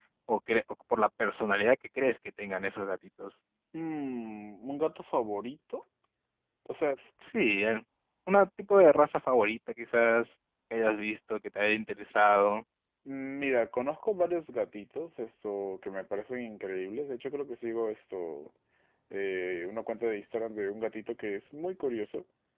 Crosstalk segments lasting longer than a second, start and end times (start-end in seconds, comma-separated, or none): none